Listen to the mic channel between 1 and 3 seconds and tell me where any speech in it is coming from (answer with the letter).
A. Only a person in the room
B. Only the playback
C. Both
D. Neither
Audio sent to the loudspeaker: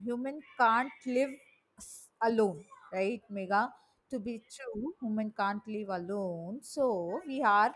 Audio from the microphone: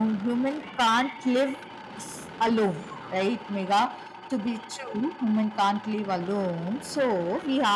B